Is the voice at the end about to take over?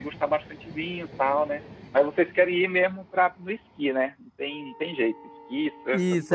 Yes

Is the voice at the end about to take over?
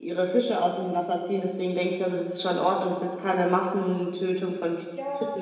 Yes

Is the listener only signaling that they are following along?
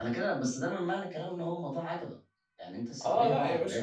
No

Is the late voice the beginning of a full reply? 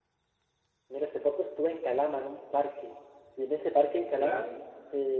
No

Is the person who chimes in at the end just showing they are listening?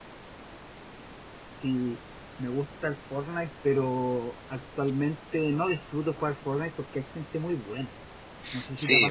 No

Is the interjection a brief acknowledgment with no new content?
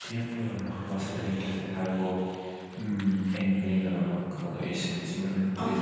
Yes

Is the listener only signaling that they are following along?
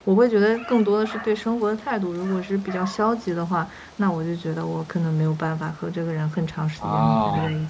Yes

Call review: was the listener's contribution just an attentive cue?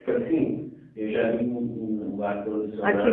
No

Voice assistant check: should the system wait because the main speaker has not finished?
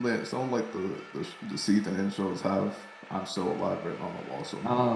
No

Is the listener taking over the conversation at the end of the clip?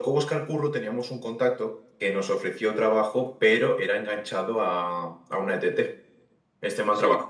No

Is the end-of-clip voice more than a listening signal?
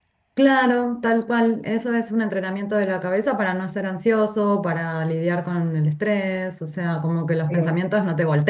No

